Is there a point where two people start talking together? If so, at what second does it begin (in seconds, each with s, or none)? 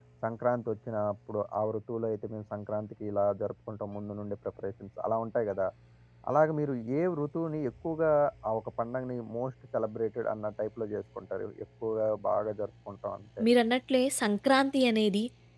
none